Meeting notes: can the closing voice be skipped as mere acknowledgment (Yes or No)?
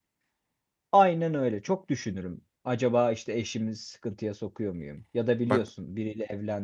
Yes